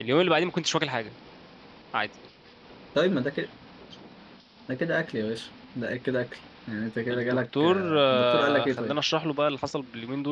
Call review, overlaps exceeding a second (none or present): present